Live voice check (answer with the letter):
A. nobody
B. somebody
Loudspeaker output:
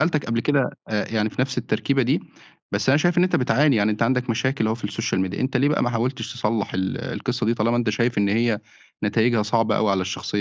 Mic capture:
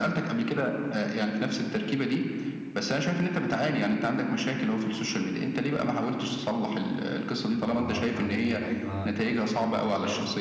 B